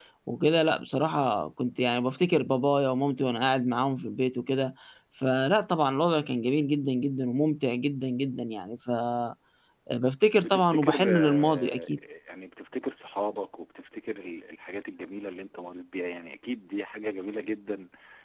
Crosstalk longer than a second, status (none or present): present